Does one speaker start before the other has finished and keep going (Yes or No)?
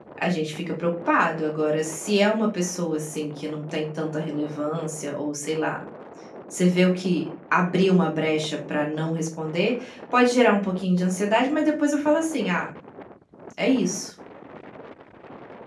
No